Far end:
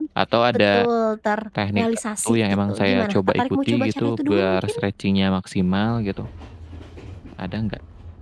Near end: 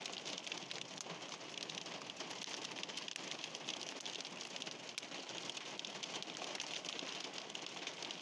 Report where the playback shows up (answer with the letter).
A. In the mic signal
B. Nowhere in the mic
B